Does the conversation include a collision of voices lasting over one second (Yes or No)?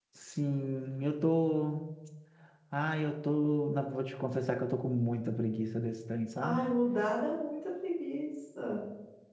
No